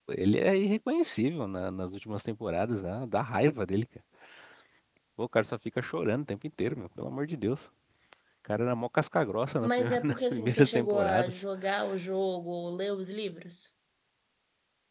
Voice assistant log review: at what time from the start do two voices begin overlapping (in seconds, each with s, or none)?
9.6 s